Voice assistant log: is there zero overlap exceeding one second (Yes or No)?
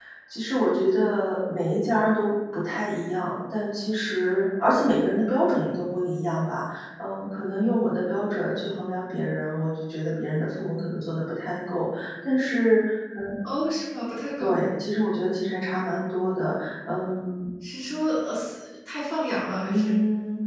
Yes